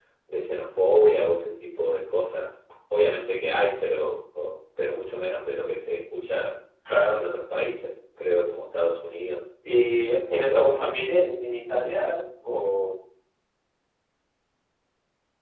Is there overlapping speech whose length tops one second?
No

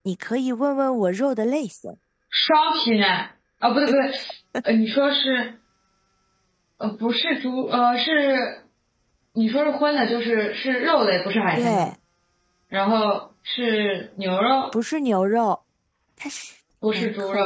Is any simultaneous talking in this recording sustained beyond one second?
No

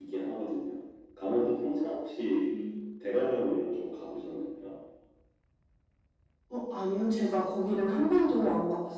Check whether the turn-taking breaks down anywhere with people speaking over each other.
No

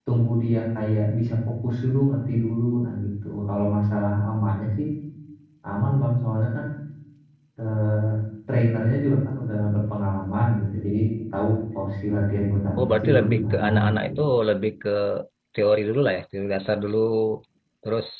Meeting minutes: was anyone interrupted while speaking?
Yes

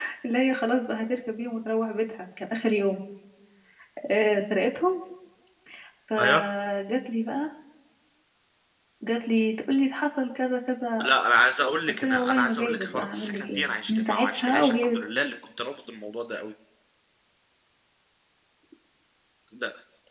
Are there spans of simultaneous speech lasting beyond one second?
Yes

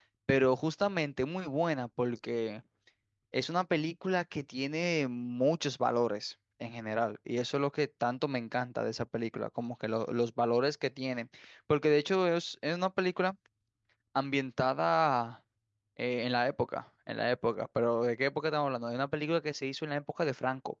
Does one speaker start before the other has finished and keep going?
No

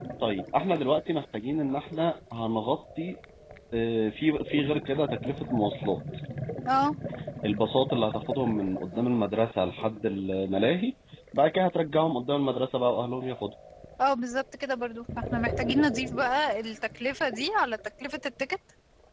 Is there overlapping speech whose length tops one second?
No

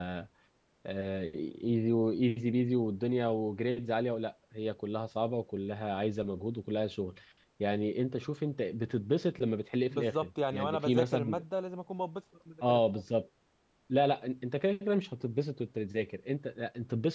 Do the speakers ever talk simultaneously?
Yes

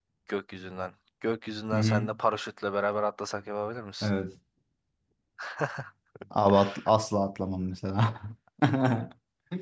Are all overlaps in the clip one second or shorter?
Yes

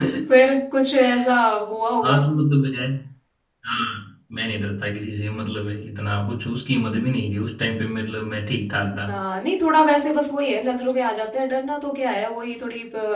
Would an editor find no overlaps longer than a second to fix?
Yes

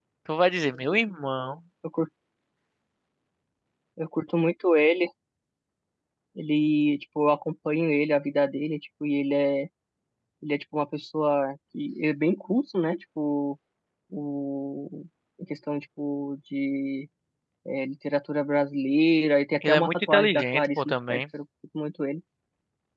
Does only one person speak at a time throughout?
No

